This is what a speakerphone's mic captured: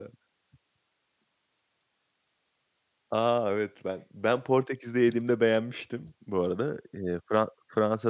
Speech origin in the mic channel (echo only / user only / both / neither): user only